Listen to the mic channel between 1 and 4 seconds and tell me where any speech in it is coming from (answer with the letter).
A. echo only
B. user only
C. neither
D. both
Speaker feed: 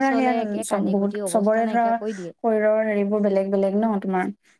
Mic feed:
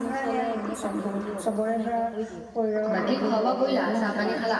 D